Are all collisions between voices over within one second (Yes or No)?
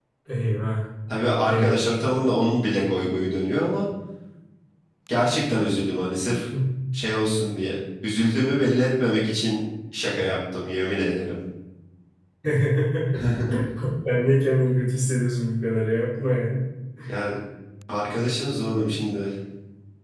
Yes